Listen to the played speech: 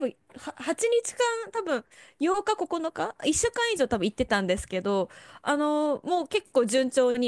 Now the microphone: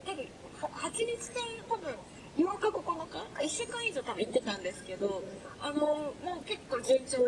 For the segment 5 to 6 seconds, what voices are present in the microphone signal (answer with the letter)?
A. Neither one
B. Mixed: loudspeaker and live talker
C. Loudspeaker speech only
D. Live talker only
C